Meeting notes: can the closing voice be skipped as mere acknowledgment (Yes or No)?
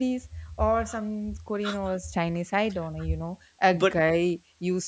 Yes